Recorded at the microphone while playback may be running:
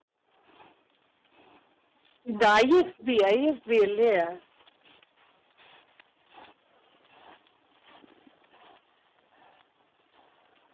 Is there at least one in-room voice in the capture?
Yes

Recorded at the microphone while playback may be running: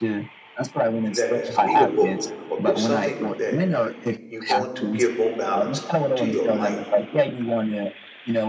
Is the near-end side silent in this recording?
No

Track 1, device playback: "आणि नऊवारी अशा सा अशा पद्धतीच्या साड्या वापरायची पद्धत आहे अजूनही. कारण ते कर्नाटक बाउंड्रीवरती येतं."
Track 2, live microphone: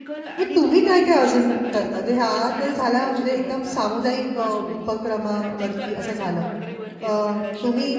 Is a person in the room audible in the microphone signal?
Yes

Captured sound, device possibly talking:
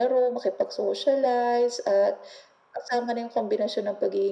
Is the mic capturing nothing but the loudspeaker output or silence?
Yes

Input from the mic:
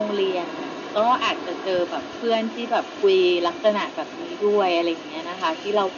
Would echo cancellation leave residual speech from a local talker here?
No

